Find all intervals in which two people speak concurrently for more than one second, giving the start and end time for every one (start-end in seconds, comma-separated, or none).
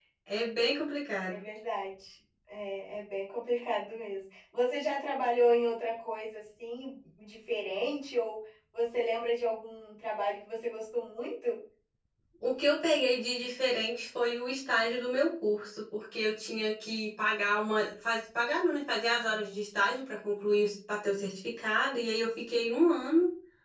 none